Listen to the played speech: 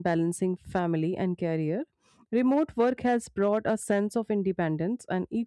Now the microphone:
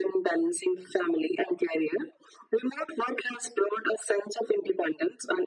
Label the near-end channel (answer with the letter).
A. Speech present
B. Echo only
B